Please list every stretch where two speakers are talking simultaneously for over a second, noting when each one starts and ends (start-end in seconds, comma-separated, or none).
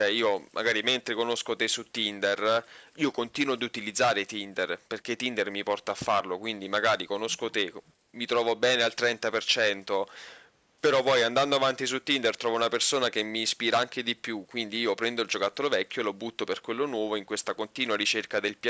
none